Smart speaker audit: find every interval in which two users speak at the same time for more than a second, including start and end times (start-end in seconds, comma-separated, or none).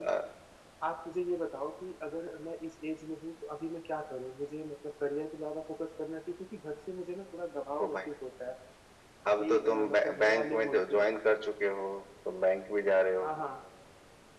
9.4-11.2